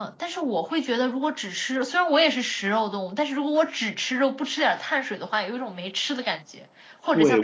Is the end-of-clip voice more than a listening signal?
Yes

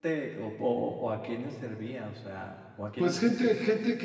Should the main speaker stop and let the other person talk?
Yes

